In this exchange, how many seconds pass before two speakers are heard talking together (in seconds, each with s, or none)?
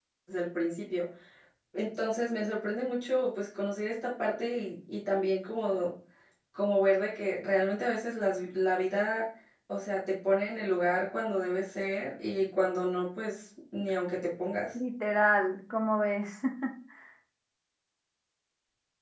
none